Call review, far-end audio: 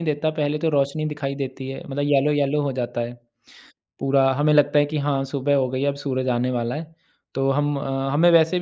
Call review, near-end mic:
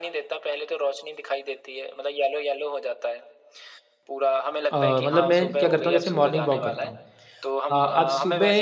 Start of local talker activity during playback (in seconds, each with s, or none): 4.7 s